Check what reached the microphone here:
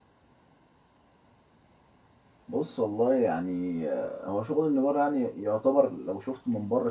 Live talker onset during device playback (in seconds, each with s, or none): 2.5 s